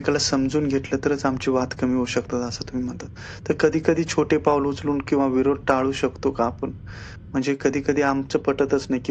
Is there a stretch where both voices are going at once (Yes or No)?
No